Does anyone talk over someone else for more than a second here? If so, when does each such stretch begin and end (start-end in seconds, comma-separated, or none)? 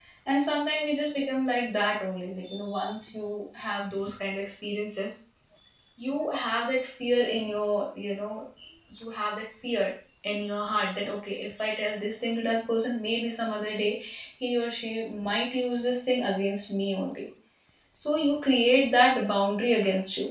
none